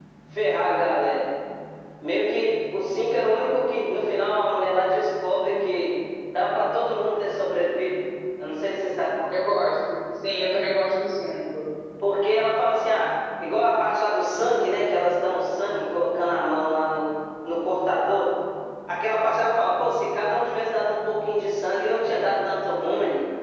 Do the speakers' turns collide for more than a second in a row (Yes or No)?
No